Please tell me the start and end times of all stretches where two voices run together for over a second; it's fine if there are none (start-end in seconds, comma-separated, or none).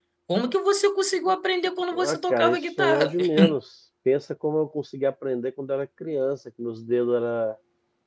2.1-3.4